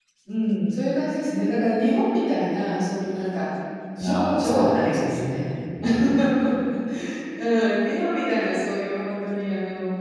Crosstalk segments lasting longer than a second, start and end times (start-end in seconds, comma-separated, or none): 4.0-5.2